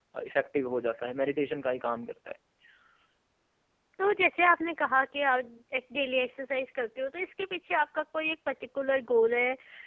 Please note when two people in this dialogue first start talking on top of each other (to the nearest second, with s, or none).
none